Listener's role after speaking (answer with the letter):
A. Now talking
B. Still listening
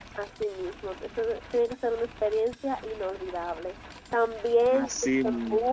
B